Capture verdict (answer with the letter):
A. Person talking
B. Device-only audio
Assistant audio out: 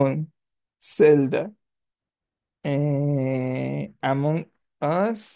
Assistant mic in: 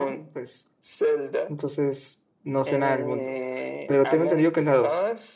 A